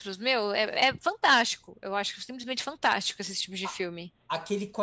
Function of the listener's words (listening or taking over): taking over